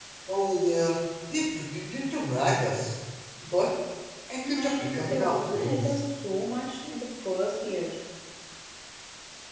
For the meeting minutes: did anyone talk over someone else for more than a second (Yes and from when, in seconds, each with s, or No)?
Yes, from 4.5 s